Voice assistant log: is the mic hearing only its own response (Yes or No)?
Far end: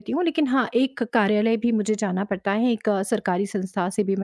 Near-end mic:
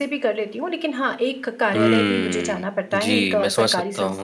No